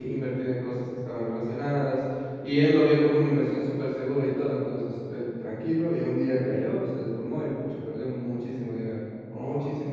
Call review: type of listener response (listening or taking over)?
taking over